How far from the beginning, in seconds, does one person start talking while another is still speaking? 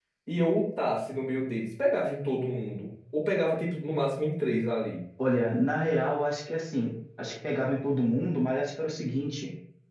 none

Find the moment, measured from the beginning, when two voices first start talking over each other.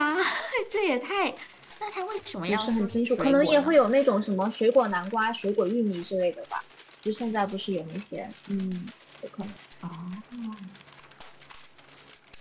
2.5 s

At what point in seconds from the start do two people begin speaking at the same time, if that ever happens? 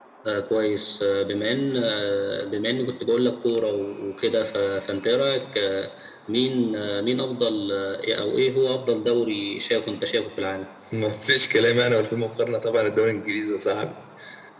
none

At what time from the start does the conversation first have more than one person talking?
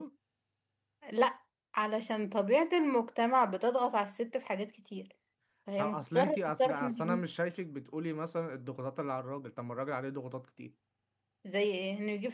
5.8 s

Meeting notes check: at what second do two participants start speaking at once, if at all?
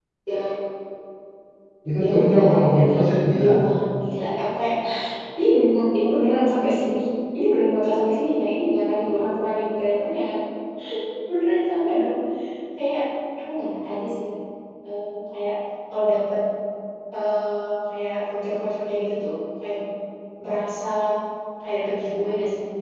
2.0 s

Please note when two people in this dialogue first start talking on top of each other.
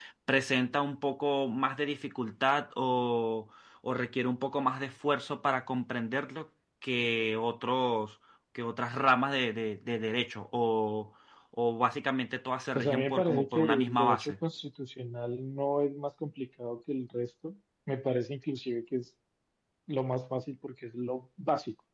12.7 s

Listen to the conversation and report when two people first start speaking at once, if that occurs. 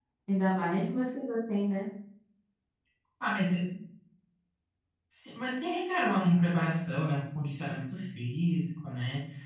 none

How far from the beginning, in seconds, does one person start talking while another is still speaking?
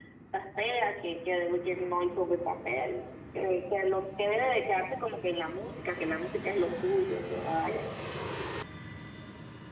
none

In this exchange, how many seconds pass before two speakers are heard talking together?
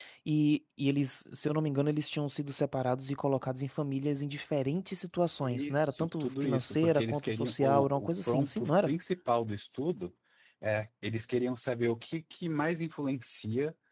5.4 s

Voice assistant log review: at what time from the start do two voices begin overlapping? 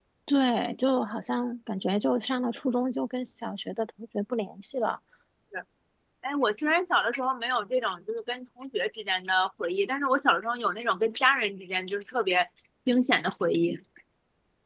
none

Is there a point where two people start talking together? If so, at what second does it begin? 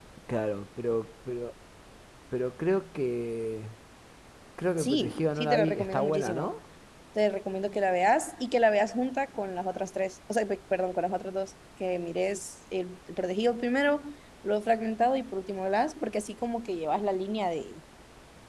4.8 s

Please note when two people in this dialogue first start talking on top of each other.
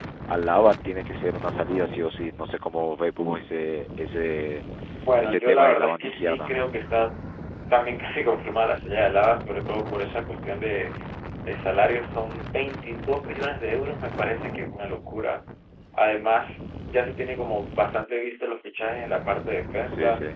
5.2 s

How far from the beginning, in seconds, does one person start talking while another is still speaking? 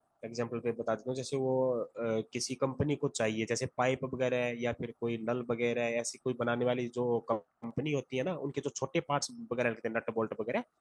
none

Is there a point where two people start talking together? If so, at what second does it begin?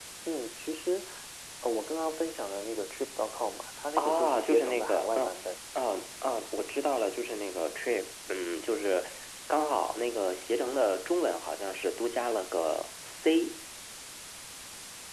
4.0 s

